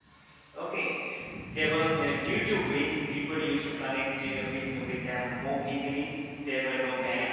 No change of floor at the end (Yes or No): Yes